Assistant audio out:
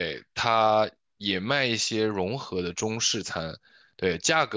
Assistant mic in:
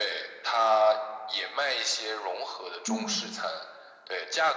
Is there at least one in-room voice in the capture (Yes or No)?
Yes